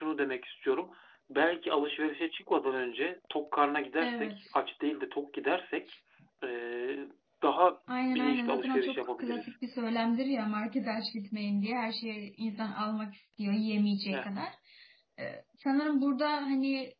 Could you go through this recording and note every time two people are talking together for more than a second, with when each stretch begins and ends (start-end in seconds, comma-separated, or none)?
8.0-9.5